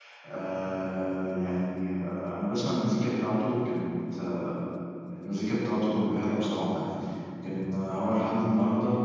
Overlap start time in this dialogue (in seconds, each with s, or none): none